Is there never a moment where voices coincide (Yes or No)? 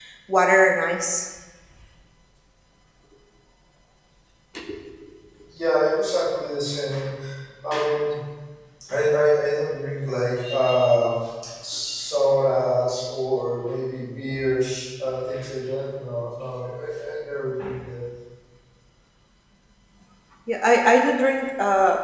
Yes